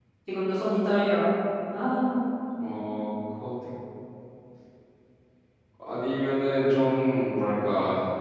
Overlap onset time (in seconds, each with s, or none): none